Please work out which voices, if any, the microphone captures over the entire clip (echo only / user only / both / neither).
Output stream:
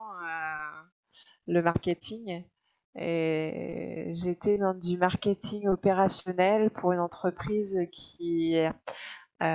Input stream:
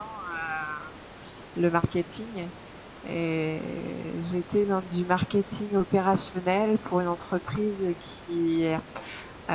echo only